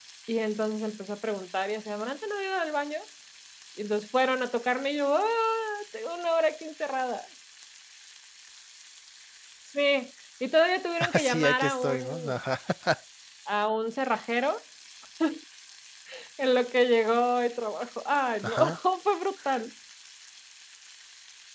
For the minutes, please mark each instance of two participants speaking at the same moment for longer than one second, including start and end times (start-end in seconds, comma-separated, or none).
11.0-12.3